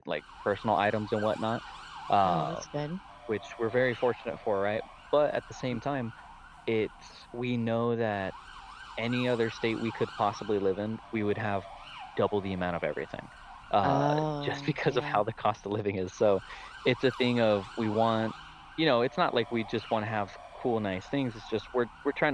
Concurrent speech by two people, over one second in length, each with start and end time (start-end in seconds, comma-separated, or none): 13.8-15.2